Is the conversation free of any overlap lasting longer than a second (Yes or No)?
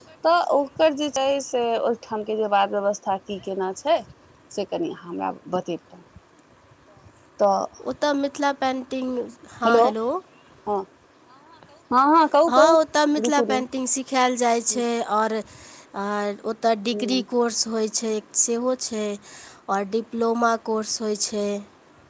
Yes